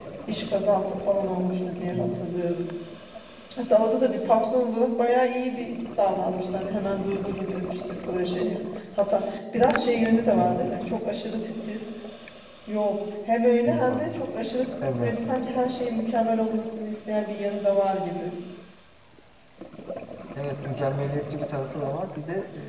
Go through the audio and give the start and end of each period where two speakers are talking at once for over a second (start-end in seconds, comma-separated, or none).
none